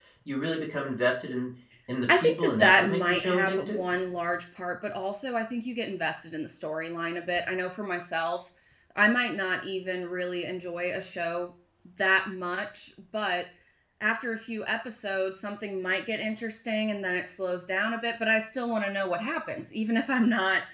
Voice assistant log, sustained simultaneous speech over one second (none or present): present